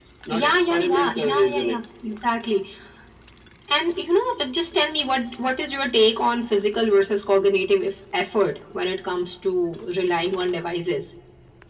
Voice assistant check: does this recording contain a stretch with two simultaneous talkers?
Yes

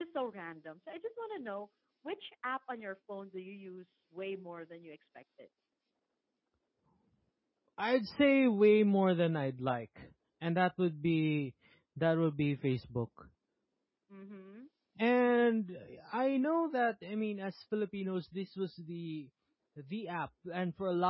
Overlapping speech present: No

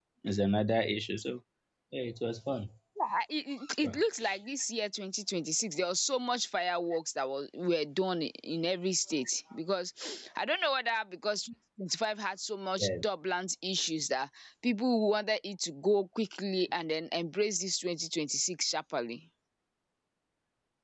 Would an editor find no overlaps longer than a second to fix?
Yes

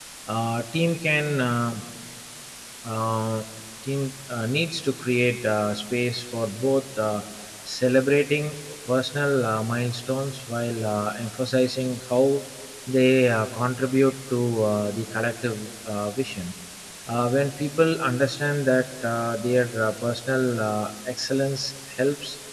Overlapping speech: No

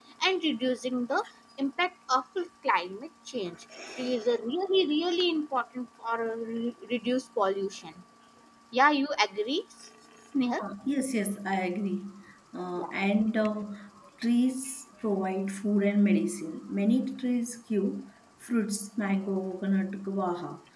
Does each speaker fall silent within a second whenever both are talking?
Yes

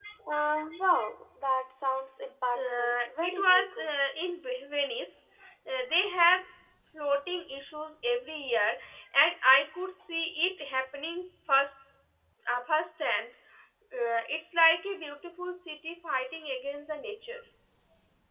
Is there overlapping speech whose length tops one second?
Yes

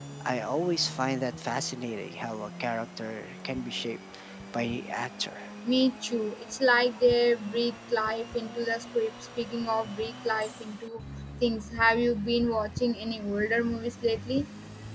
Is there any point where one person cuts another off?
No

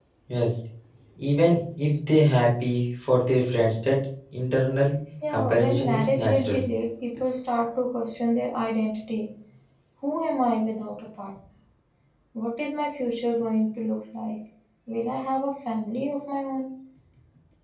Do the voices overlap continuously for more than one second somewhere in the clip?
Yes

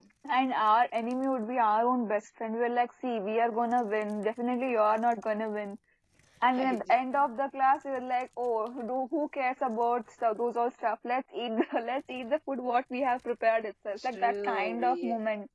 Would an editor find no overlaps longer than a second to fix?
No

